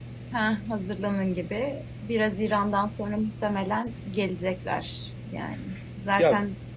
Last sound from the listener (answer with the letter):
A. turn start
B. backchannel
B